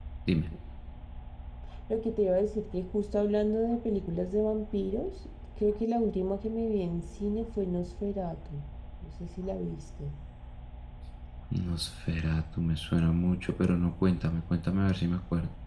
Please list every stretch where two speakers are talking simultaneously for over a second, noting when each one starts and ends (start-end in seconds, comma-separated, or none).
none